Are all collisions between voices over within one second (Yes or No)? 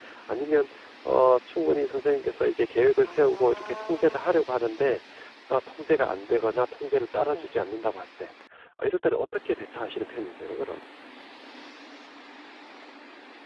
No